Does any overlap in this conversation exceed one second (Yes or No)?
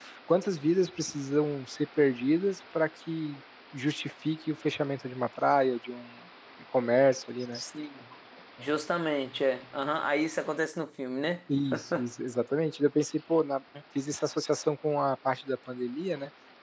No